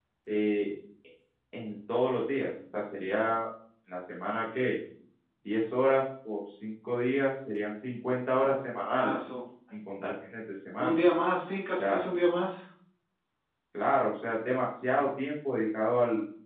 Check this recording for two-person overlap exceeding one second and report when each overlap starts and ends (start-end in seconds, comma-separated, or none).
none